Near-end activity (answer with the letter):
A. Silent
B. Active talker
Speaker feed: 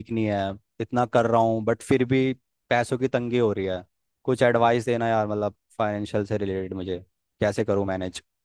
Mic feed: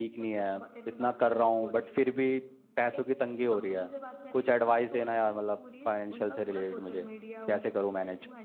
B